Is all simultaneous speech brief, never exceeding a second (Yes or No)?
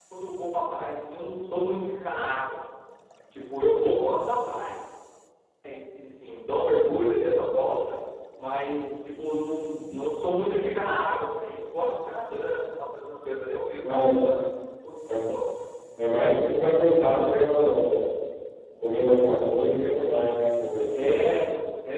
Yes